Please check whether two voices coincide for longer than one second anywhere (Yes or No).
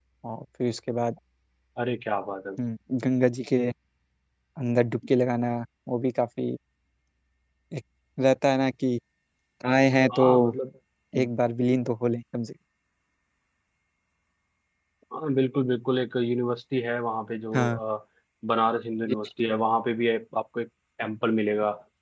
No